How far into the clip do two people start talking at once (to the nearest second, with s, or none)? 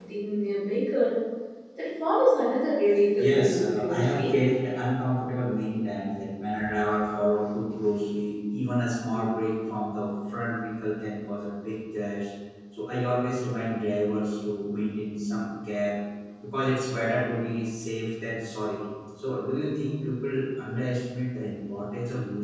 3 s